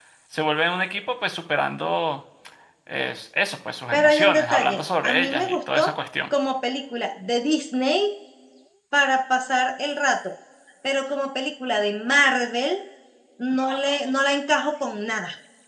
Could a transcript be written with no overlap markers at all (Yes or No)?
No